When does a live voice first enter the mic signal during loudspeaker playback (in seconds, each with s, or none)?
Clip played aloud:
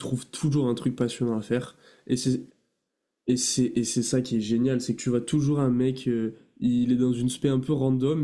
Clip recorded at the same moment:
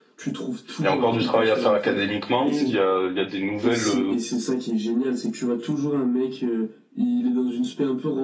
0.8 s